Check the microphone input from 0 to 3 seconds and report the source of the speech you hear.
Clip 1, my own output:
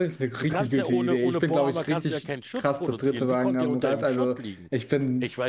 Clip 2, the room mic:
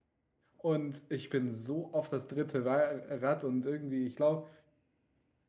user only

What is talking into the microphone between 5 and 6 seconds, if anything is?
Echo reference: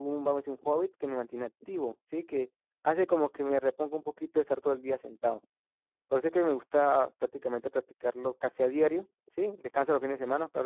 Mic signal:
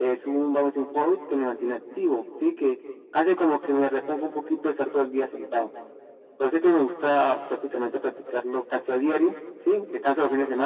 echo only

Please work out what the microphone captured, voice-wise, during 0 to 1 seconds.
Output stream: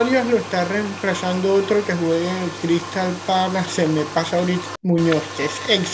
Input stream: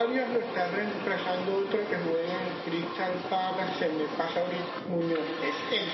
echo only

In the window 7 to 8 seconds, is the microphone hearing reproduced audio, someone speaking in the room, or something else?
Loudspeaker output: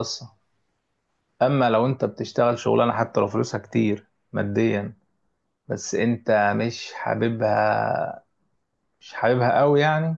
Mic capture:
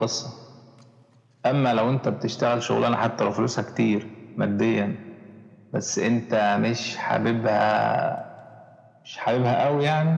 echo only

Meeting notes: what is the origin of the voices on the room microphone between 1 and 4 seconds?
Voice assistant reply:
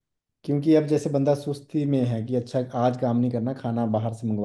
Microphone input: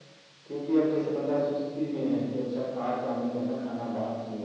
echo only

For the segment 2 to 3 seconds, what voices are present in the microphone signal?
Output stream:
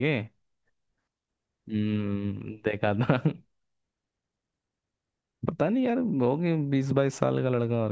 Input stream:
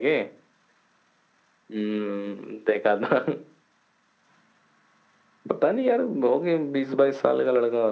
echo only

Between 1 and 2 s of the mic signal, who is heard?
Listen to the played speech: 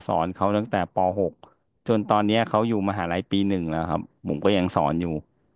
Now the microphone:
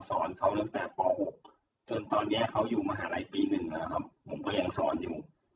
echo only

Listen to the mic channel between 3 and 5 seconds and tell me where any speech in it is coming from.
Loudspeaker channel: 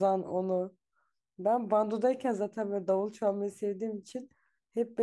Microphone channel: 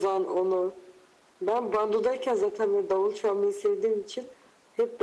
echo only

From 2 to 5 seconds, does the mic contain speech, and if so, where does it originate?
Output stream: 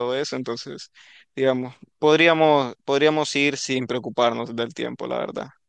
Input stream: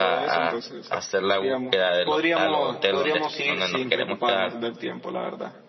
both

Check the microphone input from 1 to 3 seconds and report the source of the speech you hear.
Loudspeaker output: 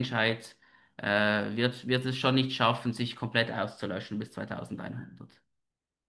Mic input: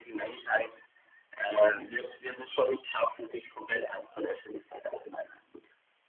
echo only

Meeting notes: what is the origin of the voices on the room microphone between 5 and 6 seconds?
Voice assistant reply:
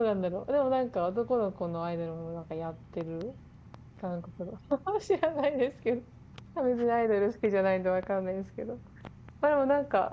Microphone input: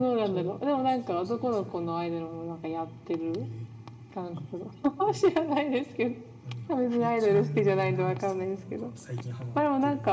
both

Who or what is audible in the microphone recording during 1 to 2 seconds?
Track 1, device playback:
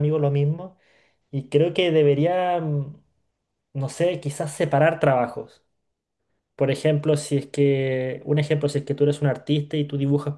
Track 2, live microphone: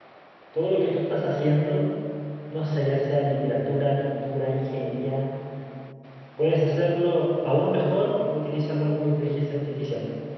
user only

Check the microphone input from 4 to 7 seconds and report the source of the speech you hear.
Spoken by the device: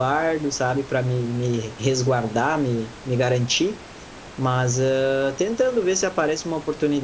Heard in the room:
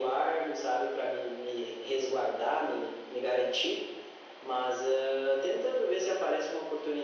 echo only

